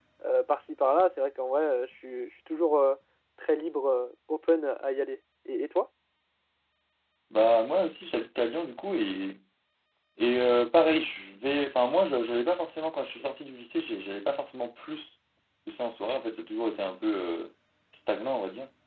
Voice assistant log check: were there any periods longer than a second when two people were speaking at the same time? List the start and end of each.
none

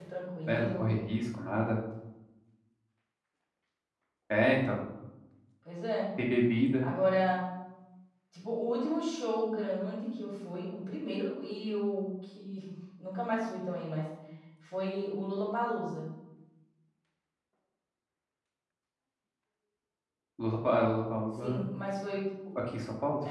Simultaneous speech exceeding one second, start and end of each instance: none

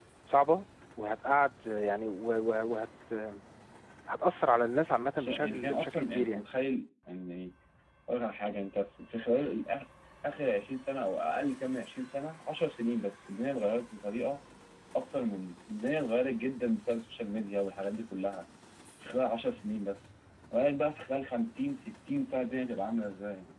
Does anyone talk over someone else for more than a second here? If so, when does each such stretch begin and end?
5.2-6.4

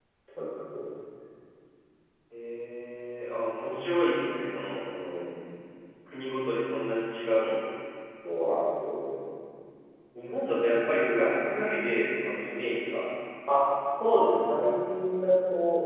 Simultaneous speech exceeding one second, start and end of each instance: none

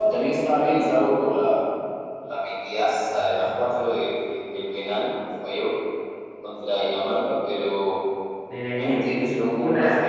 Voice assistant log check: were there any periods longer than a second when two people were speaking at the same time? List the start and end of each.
none

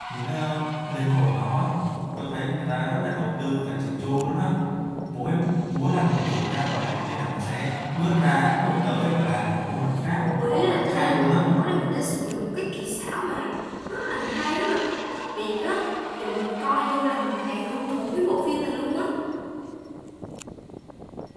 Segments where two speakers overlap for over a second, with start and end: 10.2-11.4

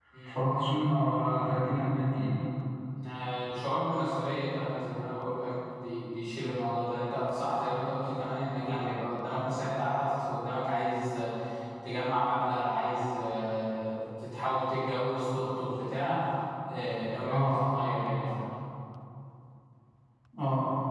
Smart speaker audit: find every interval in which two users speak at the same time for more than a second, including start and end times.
none

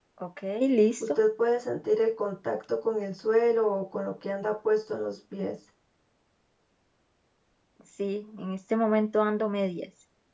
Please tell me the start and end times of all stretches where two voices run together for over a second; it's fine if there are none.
none

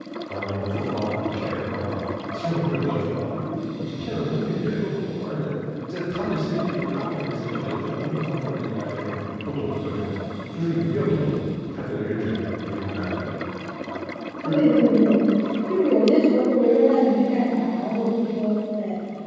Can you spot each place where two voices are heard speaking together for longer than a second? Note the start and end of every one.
none

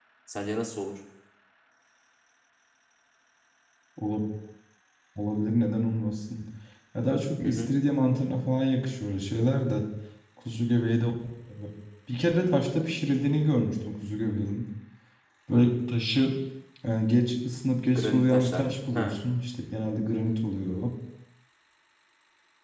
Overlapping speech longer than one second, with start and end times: 18.0-19.2

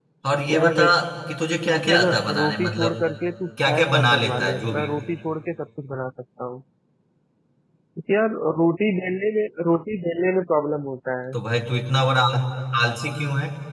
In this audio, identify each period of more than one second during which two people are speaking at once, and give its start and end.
1.7-3.0, 3.7-4.9

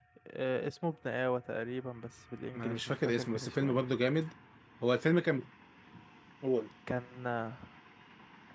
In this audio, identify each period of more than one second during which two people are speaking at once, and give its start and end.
2.5-3.8

